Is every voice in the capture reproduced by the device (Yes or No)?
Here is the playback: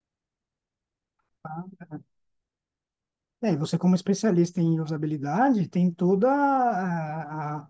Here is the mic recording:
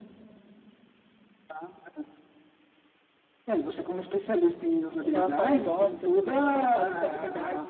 No